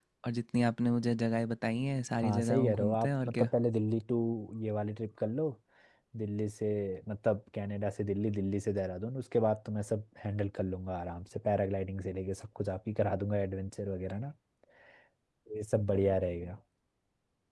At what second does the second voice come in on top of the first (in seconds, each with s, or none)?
2.2 s